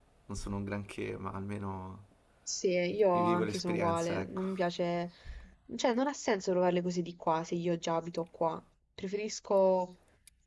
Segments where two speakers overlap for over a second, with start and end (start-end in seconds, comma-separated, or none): 3.1-4.6